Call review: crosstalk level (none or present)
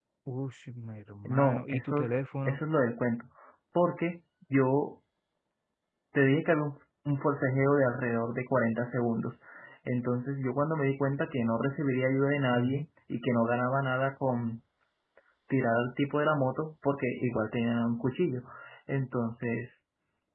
present